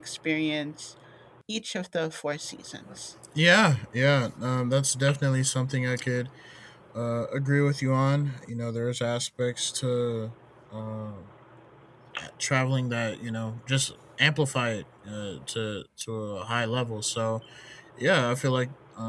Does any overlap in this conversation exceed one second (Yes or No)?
No